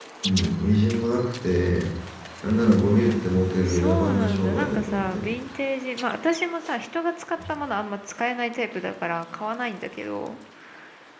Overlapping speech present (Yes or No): Yes